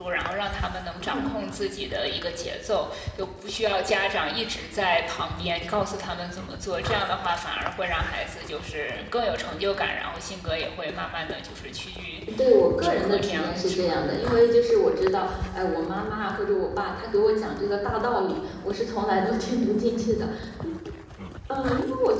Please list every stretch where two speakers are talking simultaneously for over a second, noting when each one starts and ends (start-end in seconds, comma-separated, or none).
12.8-14.0